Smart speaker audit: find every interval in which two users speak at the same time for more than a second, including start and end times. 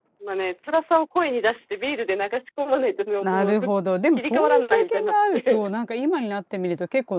4.2-5.6

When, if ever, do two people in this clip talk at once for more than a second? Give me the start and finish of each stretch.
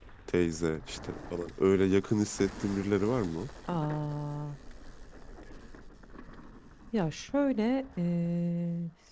none

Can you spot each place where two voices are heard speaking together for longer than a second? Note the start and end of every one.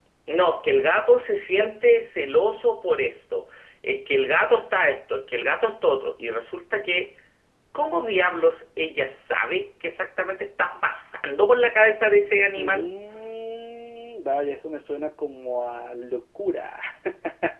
none

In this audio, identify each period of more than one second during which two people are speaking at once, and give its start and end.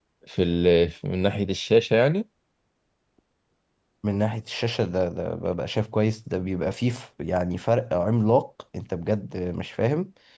none

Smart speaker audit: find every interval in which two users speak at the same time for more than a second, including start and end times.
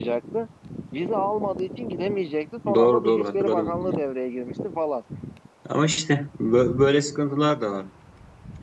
2.7-4.0

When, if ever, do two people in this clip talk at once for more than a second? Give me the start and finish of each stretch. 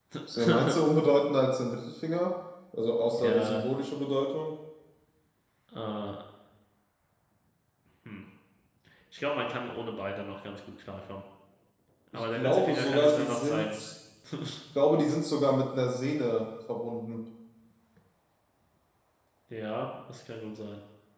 12.1-13.8

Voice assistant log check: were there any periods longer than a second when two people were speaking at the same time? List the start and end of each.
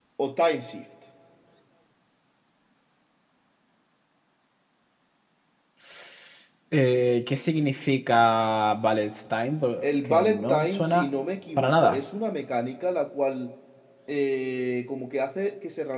9.8-11.1

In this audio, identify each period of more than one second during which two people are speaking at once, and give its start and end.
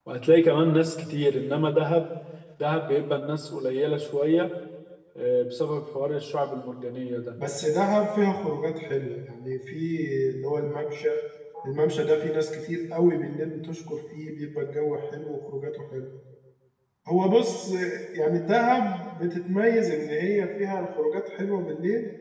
none

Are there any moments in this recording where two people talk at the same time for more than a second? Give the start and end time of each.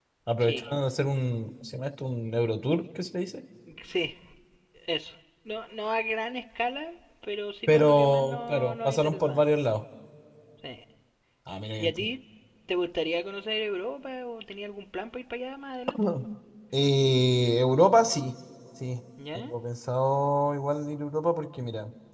7.7-9.5

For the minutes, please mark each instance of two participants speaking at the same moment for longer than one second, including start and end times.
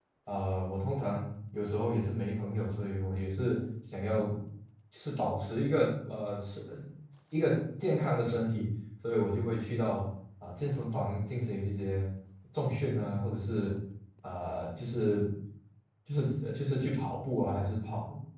none

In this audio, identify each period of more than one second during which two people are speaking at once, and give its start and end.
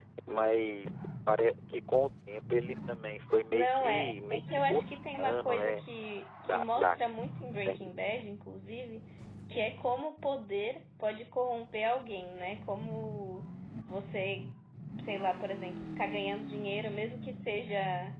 3.5-5.8

